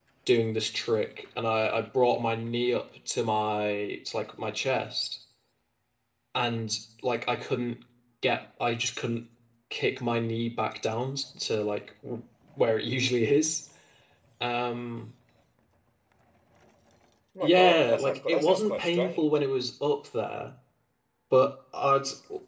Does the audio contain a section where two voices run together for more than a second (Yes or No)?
Yes